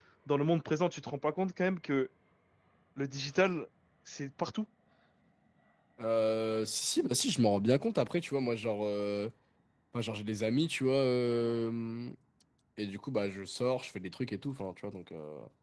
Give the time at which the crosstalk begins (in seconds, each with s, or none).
none